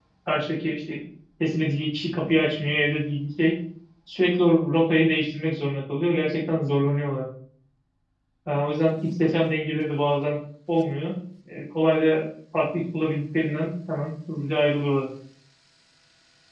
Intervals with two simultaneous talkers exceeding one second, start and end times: none

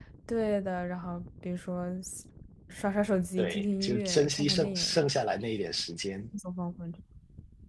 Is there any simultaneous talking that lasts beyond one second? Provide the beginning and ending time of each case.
3.4-5.1

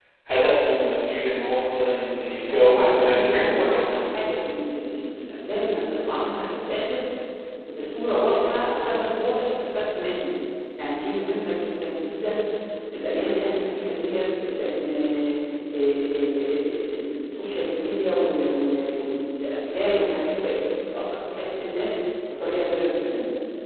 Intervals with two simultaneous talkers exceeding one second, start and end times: 2.5-4.1

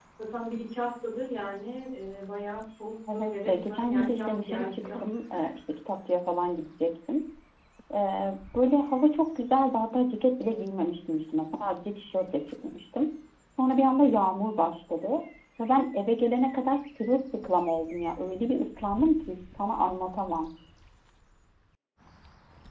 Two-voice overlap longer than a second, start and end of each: 3.1-4.9

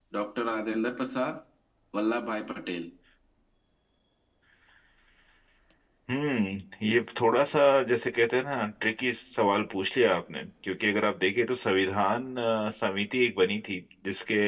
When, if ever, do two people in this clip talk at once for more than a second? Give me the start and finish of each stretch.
none

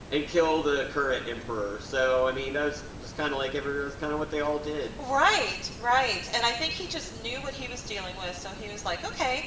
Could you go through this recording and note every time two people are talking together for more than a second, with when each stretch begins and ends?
none

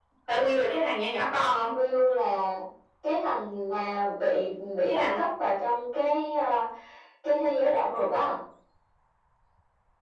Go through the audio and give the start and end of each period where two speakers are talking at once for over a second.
none

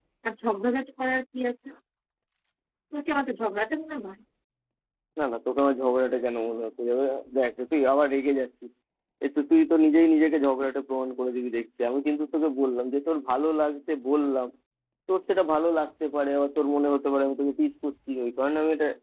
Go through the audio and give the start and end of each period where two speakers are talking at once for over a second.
none

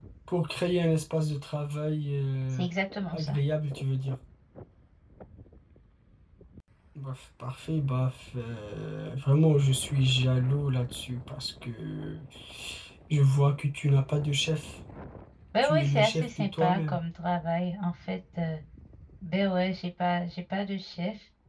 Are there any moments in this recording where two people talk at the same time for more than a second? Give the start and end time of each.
15.6-17.0

